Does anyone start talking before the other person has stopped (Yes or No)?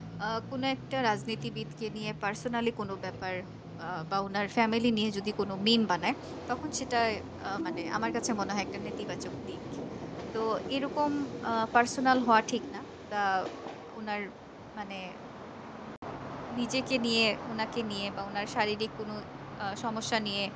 No